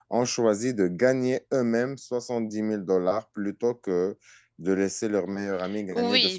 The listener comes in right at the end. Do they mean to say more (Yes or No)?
Yes